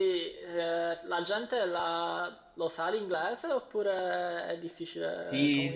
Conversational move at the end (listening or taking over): taking over